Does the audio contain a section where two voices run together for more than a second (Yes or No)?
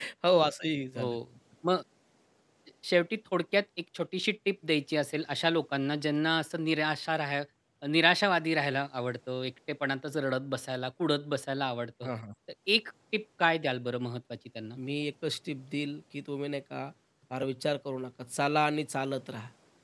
No